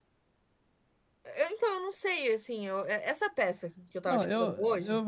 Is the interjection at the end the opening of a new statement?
Yes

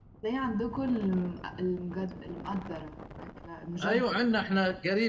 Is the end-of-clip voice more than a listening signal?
Yes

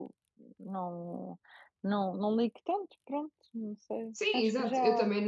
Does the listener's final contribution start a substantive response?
Yes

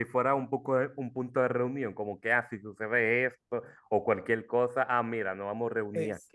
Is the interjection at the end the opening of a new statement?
Yes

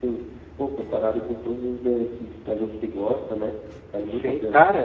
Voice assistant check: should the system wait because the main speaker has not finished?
No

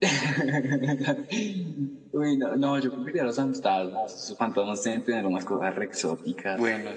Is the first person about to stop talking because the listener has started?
No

